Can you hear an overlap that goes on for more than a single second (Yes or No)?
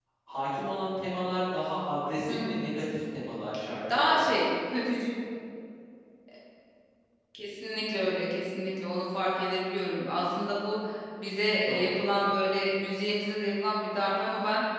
No